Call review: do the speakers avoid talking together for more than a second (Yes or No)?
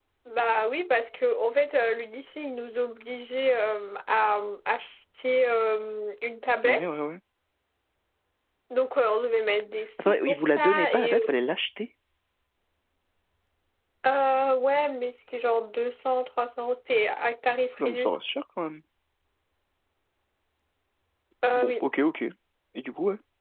No